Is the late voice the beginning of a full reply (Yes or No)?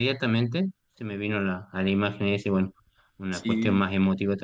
No